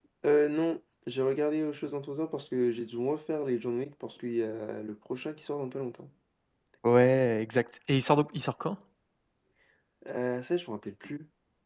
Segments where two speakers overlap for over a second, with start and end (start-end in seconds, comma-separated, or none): none